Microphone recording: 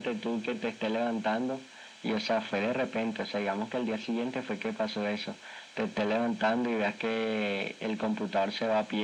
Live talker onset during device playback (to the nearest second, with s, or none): none